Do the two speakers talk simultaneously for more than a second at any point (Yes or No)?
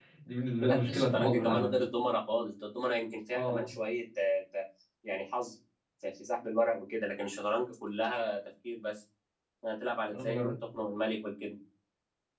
Yes